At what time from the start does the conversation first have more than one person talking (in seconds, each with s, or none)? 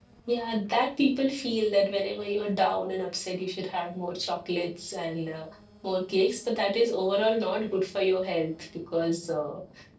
none